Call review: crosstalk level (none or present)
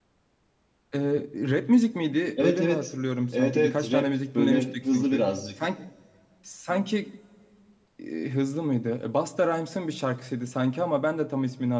present